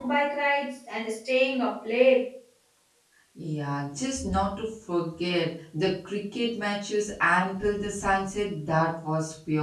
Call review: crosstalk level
none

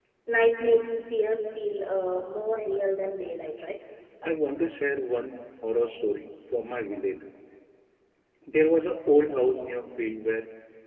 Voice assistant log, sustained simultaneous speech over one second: none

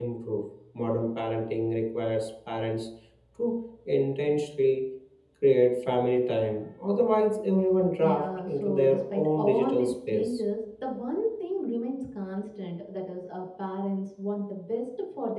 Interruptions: present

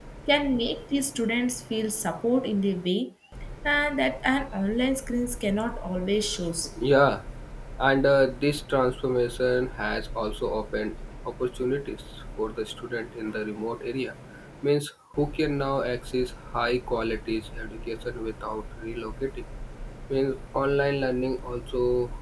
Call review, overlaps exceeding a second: none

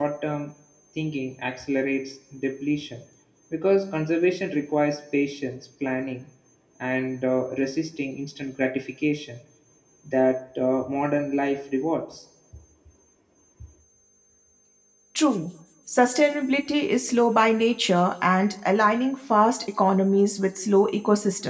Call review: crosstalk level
none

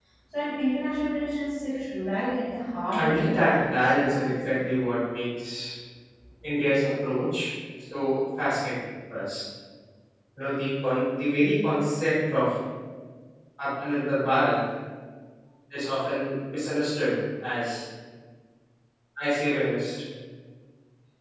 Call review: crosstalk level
present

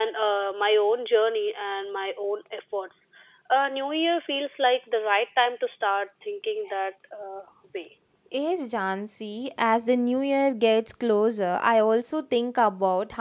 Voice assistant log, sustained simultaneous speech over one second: none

